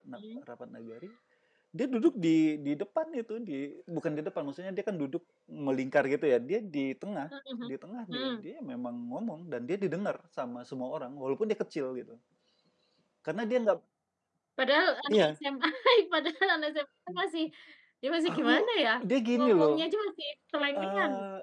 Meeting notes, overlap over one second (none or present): none